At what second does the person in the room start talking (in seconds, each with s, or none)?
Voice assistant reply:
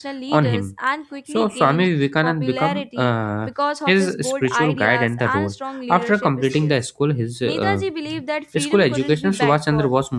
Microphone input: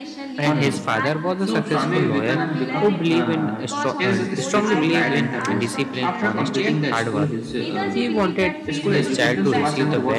0.4 s